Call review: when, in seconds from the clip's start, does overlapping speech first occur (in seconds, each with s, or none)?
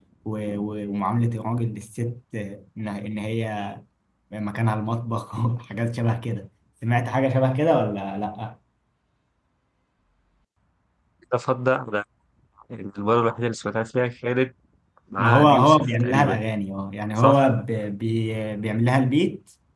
15.2 s